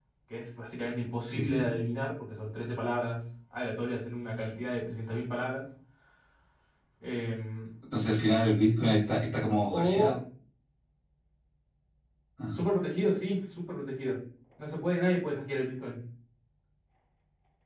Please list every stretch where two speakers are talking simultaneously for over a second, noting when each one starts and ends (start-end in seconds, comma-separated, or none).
none